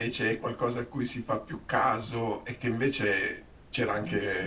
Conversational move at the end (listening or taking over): listening